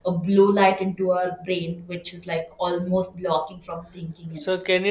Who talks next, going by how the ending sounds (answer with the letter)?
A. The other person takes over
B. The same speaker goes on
A